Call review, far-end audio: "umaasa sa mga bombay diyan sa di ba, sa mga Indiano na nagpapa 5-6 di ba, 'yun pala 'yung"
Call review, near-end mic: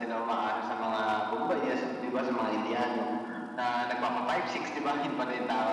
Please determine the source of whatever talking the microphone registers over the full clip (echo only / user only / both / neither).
echo only